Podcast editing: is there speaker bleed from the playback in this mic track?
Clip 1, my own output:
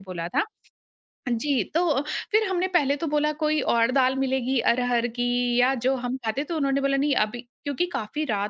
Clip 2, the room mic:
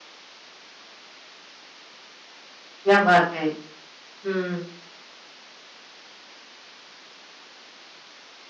No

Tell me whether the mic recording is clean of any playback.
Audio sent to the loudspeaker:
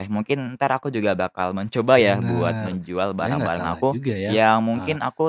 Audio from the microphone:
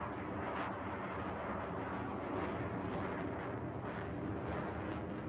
Yes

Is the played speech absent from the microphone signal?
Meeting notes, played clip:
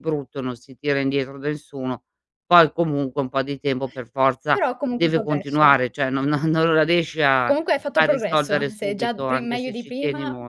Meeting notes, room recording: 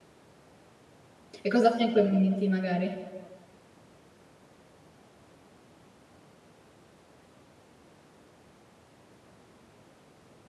Yes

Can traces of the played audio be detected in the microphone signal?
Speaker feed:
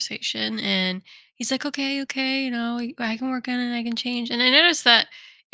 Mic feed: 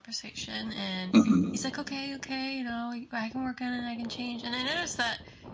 Yes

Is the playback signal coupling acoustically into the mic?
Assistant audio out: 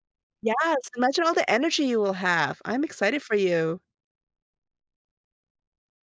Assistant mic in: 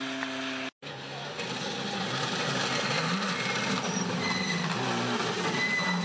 No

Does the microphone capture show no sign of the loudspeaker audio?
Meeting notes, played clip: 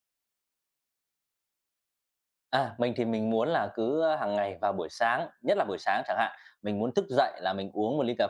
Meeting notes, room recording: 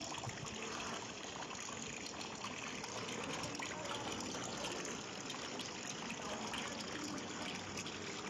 Yes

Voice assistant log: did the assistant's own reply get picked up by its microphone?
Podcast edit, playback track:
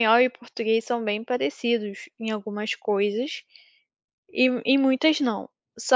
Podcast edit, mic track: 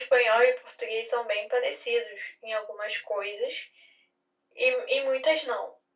Yes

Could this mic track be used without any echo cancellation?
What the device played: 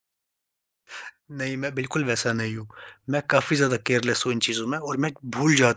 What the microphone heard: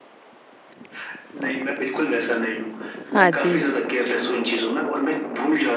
No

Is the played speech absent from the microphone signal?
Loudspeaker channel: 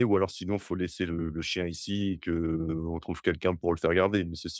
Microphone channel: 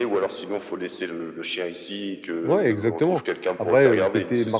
No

